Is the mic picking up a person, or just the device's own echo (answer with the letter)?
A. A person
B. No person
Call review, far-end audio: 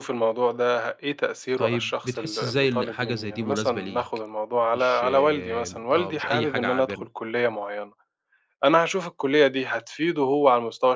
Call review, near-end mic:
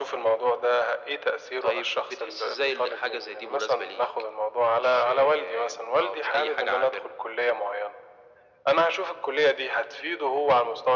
B